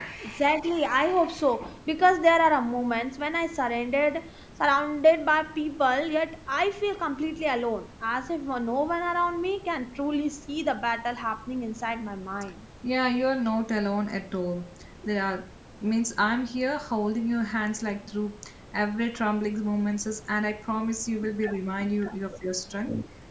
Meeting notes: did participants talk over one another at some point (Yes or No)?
No